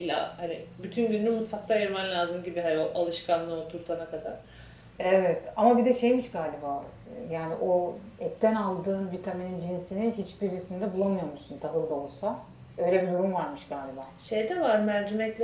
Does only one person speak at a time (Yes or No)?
Yes